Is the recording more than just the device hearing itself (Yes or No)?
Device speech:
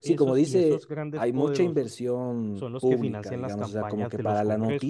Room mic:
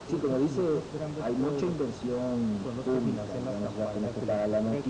No